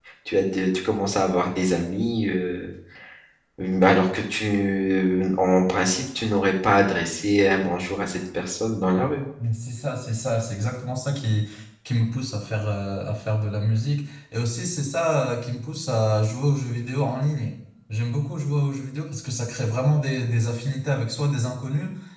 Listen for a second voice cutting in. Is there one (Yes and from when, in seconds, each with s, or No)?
No